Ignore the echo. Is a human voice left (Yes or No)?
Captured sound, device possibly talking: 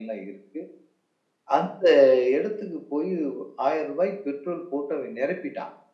No